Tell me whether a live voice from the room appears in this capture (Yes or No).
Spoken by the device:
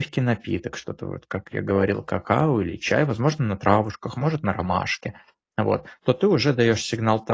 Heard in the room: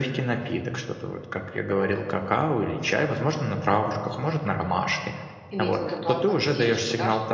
Yes